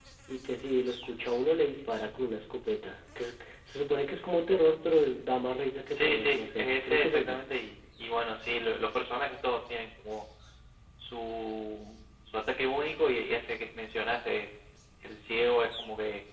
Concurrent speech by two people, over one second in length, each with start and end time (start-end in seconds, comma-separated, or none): 5.9-7.4